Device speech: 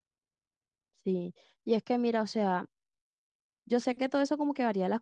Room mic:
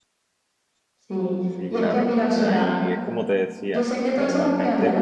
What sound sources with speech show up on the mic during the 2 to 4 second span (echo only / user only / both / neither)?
both